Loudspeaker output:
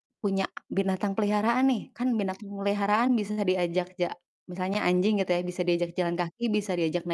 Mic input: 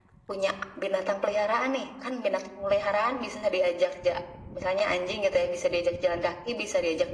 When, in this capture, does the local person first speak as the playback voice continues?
none

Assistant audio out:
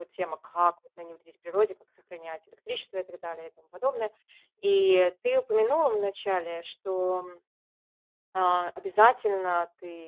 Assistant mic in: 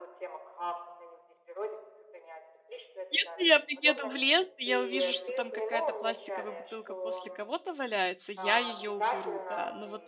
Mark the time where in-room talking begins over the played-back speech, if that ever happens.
3 s

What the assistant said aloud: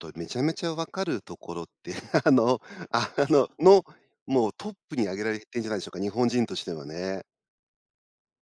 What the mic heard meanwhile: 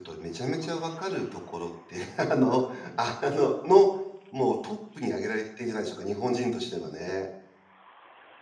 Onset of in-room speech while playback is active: none

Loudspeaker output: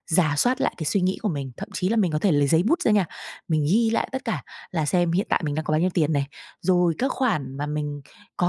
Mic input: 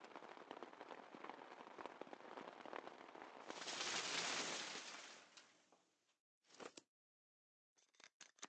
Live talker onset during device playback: none

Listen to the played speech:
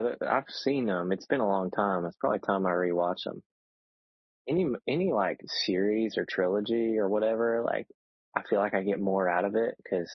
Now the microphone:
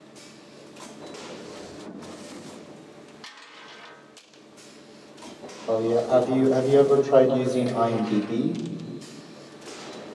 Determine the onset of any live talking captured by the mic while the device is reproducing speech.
6 s

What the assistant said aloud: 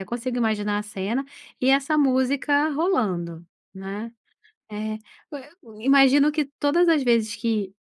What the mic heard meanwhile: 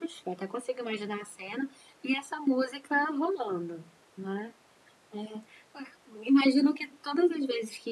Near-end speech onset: none

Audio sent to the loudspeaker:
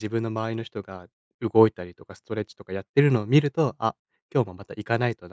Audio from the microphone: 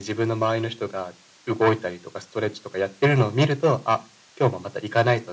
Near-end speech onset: none

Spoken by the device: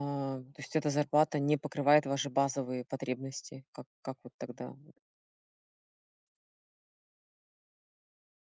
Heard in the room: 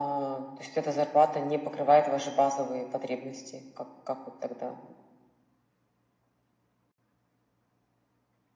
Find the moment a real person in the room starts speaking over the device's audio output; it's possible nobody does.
none

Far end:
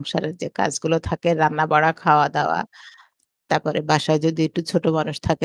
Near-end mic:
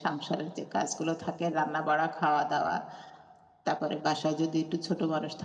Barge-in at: none

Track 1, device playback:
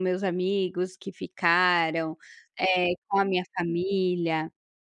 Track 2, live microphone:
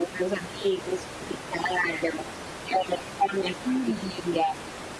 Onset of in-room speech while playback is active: 4 s

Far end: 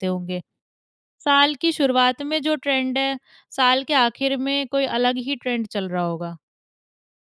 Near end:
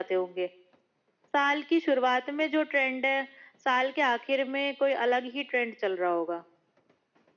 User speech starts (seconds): none

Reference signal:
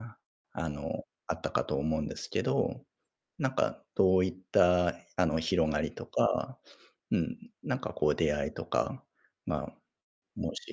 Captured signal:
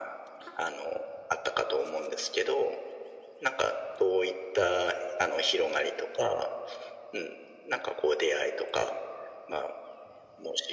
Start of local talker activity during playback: none

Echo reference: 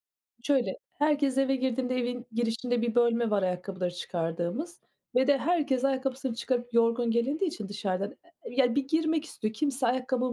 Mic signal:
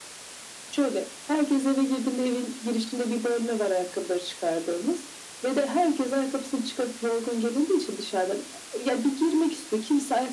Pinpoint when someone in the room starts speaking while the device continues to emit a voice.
none

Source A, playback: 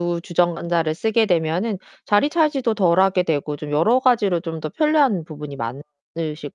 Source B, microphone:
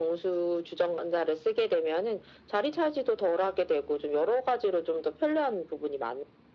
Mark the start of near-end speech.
none

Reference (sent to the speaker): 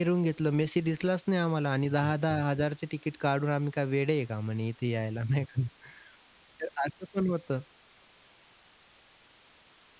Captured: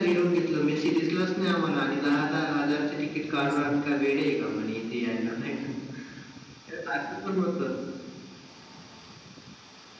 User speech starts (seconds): 3 s

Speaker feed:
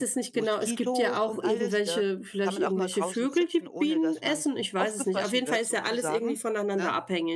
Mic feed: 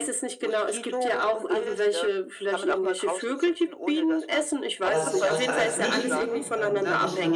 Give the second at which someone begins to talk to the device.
5 s

